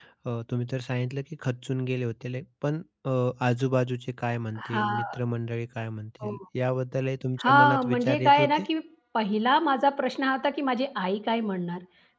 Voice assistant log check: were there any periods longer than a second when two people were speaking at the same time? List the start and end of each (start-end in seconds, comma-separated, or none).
7.4-8.6